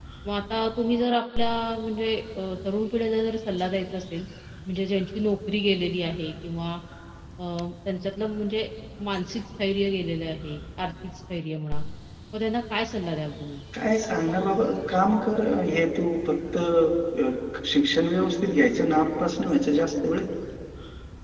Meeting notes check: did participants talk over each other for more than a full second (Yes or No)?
No